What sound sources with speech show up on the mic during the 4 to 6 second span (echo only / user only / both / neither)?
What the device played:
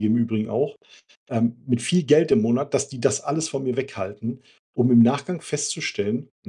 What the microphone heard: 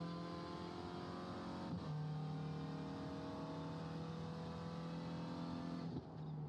neither